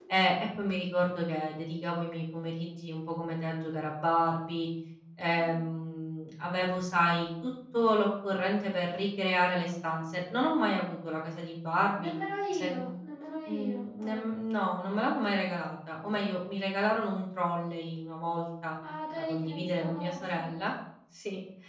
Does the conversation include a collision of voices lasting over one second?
Yes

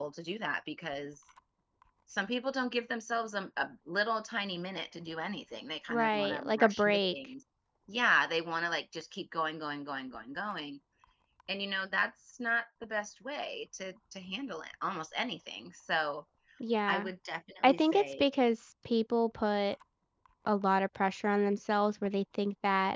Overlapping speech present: Yes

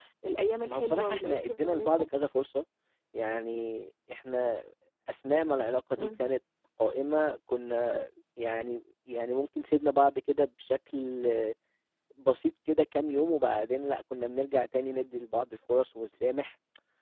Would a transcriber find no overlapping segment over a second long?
No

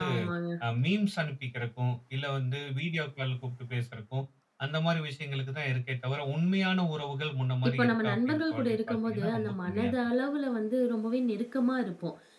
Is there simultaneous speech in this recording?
Yes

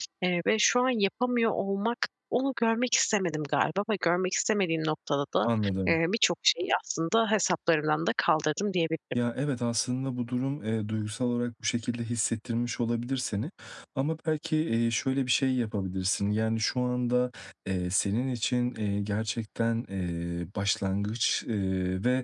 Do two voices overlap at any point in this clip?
No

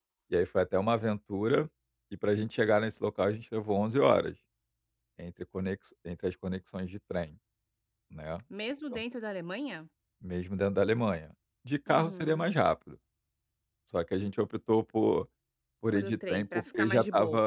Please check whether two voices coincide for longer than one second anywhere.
Yes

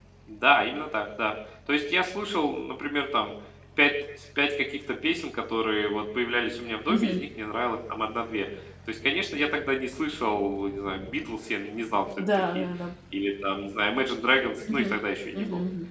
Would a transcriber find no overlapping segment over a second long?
Yes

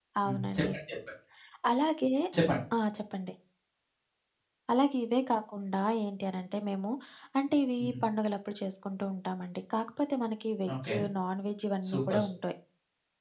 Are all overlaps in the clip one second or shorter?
Yes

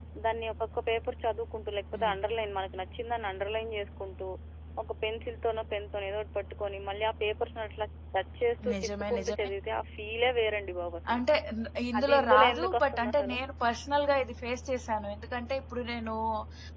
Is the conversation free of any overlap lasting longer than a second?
No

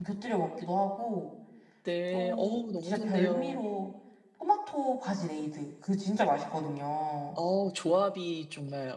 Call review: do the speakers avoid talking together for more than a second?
No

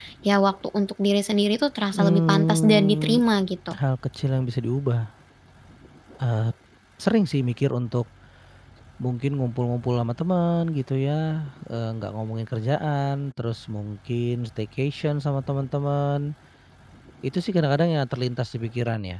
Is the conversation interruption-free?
No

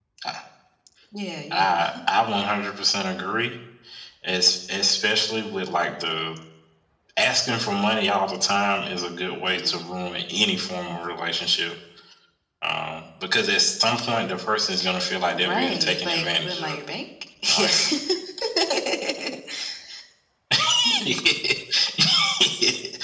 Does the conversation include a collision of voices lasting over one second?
Yes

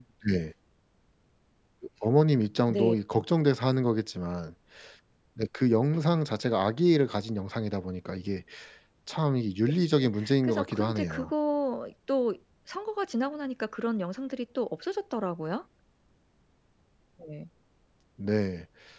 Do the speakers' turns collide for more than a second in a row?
Yes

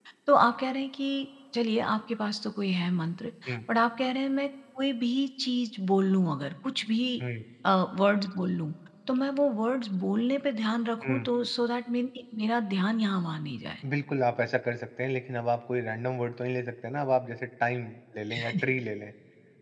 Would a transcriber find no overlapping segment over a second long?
Yes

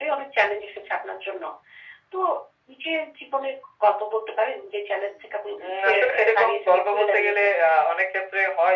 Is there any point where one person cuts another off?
Yes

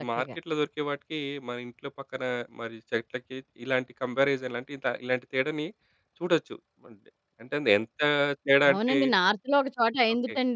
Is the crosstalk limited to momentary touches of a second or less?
Yes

